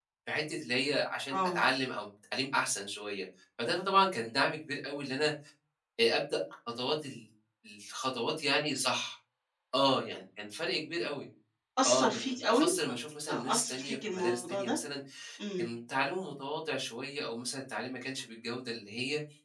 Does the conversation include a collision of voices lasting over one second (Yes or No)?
Yes